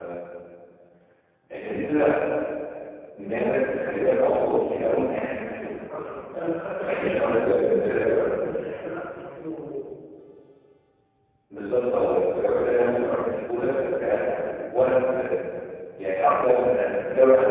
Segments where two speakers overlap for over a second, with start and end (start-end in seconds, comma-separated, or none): 6.9-8.3